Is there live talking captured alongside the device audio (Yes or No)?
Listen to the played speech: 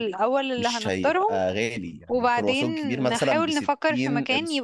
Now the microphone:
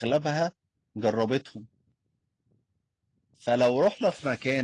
Yes